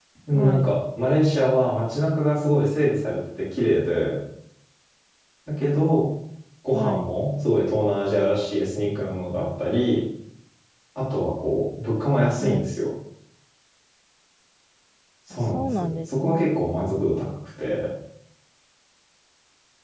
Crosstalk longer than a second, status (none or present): present